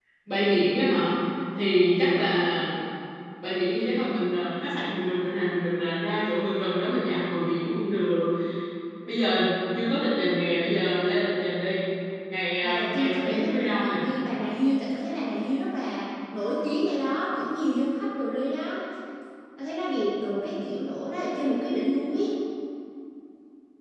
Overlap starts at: 13 s

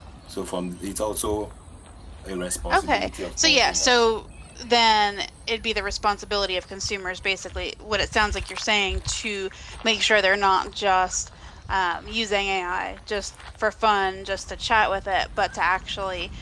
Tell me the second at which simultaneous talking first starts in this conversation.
3 s

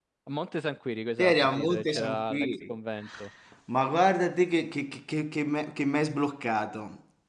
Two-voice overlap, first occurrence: 1 s

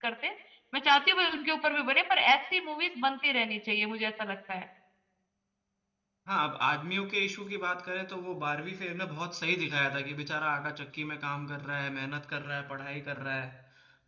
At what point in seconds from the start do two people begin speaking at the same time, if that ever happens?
none

